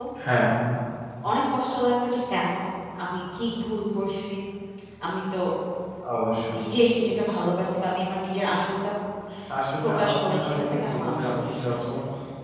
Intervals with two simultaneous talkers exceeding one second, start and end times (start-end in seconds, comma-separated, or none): 9.8-11.9